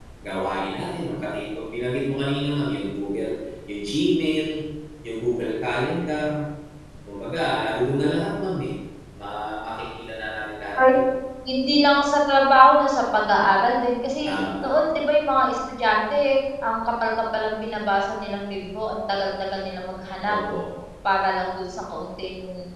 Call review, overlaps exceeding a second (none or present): none